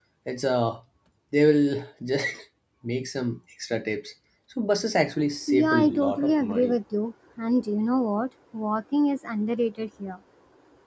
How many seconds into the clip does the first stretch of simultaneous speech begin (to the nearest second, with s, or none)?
5 s